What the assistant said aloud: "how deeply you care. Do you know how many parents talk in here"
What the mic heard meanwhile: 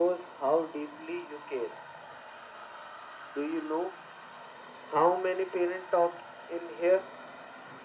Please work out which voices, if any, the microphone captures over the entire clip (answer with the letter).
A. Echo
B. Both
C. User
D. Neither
A